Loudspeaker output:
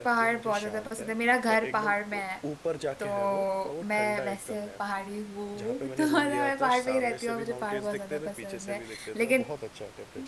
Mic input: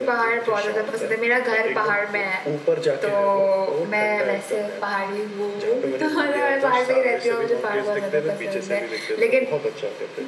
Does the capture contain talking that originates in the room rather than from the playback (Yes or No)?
No